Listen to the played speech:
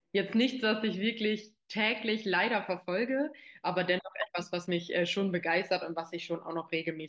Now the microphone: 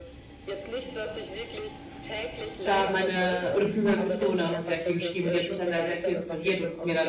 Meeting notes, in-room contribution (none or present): present